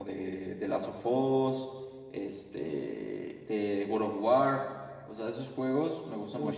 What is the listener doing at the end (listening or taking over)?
taking over